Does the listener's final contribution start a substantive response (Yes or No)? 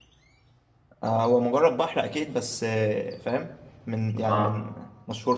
No